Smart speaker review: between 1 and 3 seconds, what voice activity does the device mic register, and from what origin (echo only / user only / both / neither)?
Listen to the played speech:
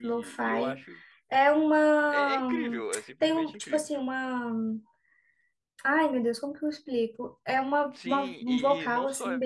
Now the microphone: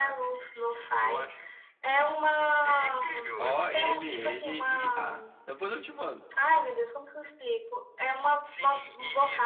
echo only